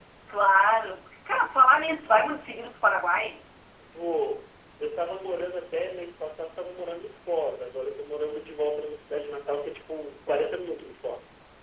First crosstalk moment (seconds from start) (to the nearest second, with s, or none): none